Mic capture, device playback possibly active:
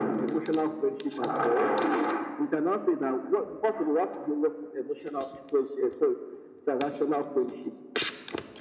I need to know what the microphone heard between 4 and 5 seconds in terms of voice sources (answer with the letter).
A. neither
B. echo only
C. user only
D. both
B